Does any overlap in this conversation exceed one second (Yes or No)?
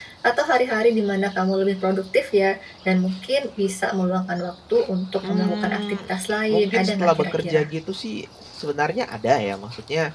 Yes